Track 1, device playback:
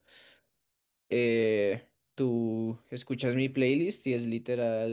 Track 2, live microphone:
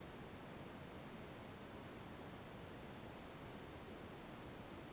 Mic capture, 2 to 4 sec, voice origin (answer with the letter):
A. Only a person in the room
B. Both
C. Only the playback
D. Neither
D